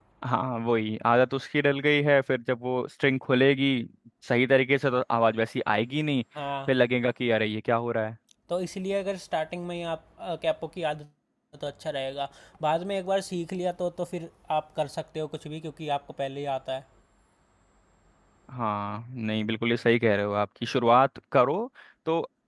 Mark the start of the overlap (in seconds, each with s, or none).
none